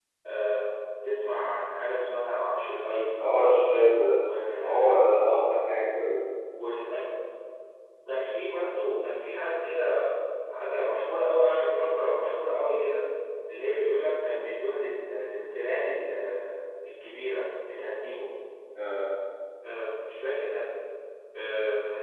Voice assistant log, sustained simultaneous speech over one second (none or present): none